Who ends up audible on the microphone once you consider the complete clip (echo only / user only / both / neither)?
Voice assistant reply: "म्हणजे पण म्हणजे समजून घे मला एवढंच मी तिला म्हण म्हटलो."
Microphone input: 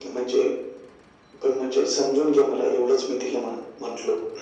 echo only